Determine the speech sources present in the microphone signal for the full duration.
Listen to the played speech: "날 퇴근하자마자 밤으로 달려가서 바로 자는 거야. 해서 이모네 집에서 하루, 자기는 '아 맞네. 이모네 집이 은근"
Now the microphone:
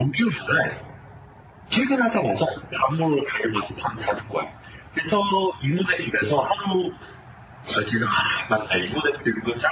echo only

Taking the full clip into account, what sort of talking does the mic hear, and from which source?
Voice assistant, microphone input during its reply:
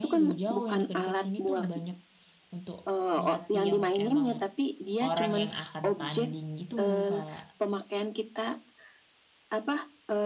both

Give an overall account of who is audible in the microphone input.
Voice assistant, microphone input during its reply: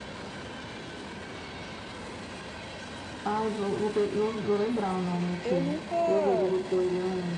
both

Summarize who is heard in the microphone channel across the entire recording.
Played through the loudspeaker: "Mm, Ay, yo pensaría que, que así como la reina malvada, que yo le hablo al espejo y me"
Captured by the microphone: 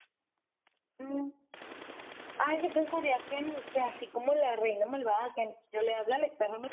echo only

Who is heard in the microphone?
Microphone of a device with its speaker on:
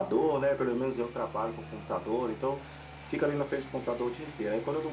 echo only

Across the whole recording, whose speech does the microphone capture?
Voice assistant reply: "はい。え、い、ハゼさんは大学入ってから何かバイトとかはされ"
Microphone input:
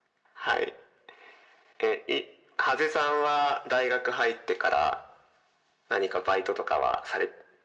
echo only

